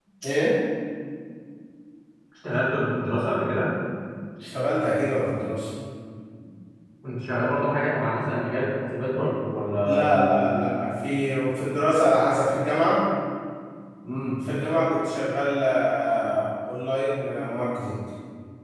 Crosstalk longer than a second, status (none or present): none